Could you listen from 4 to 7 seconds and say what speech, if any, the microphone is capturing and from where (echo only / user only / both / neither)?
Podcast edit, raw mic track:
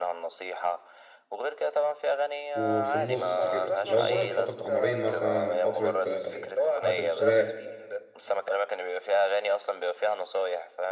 both